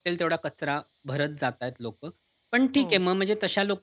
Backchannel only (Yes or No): Yes